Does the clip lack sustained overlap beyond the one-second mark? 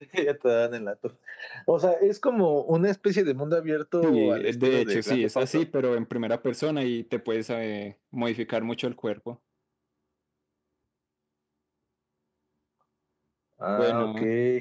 No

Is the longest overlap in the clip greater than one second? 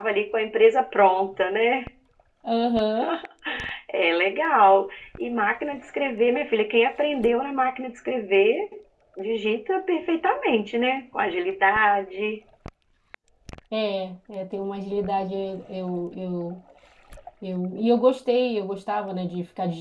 No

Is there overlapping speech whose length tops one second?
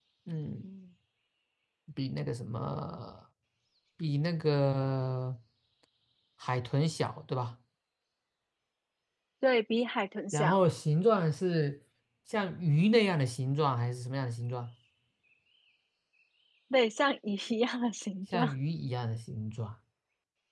No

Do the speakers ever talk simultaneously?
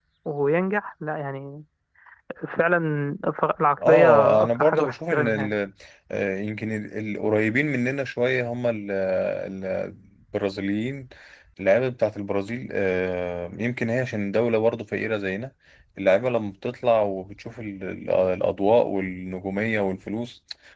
Yes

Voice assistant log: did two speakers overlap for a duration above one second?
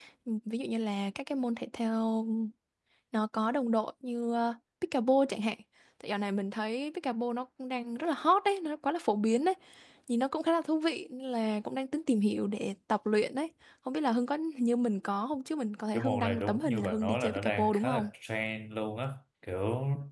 Yes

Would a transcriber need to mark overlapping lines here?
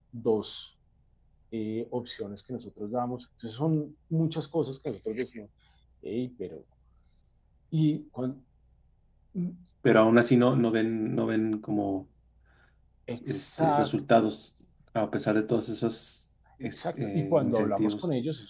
Yes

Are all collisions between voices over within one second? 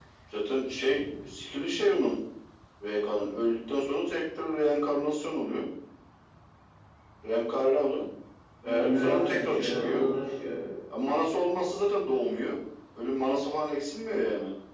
No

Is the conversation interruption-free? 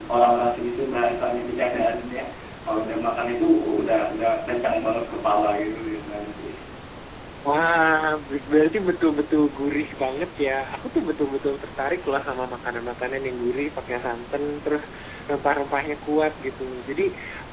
Yes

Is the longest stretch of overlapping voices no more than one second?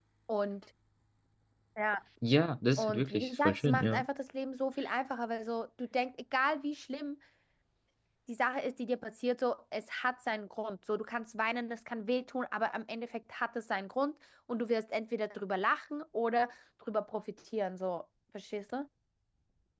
No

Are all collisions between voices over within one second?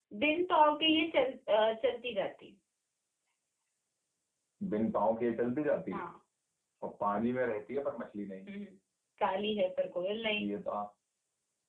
Yes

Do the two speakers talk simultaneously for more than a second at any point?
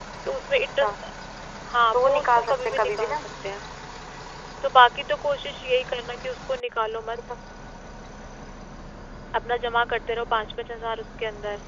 Yes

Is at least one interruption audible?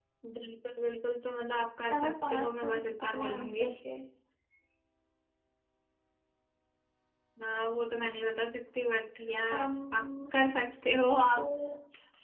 Yes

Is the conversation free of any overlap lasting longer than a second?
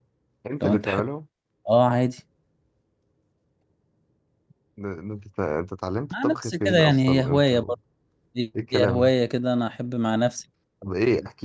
No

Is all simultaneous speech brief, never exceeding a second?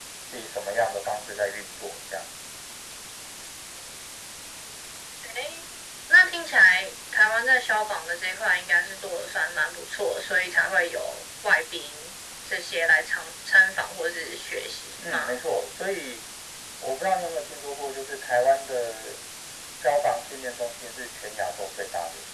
Yes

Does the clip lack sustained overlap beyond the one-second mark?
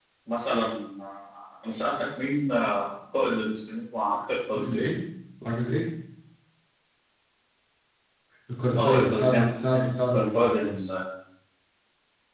No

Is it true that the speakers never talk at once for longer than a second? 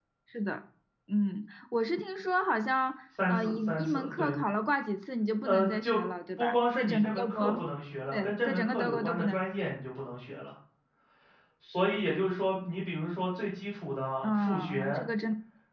No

